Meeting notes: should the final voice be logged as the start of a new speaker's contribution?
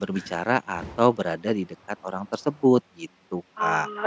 Yes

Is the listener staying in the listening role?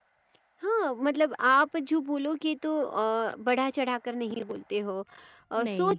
Yes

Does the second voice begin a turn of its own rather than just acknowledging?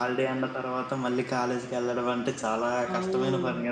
Yes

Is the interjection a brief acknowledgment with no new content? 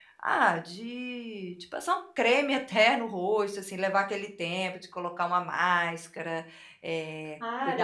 No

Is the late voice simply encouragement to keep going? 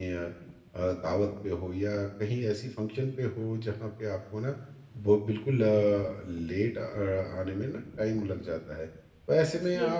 Yes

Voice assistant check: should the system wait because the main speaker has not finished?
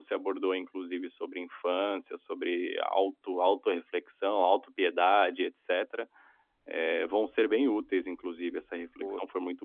Yes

